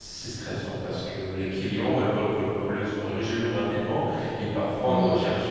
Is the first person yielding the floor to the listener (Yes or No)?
No